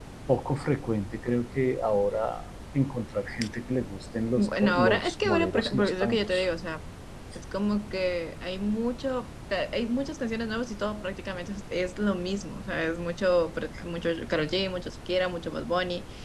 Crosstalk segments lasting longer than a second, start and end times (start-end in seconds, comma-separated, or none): 4.4-6.4